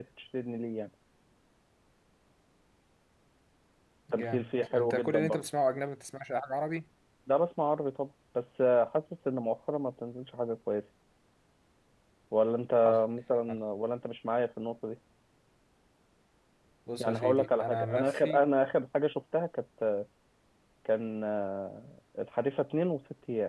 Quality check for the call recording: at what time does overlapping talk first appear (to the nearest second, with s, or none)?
4 s